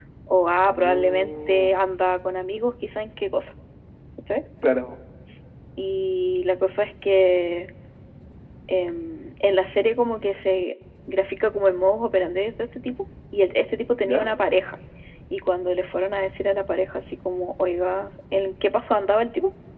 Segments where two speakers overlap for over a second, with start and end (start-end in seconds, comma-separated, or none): 0.6-1.8